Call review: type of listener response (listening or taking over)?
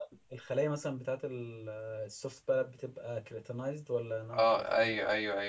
taking over